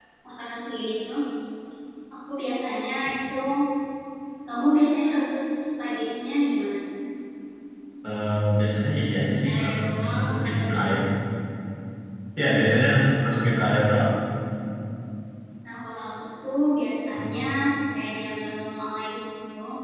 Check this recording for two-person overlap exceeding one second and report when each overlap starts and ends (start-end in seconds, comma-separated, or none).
9.6-11.0